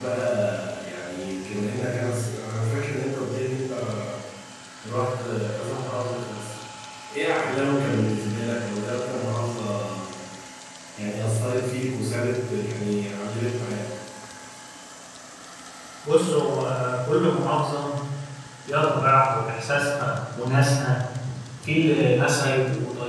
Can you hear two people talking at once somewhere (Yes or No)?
No